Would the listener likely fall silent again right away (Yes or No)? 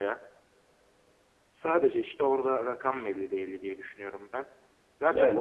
Yes